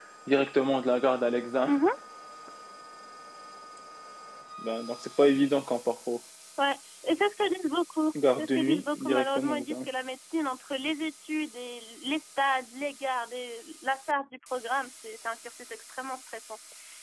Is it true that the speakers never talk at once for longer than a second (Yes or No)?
No